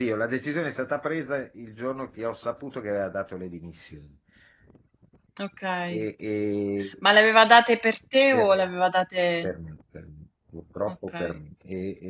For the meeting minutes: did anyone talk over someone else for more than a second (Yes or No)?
No